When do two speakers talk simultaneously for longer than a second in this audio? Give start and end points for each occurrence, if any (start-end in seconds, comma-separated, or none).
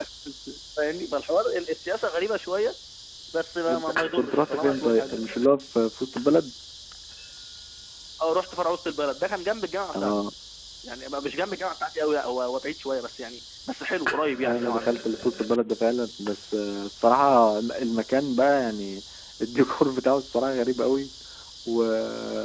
3.7-5.1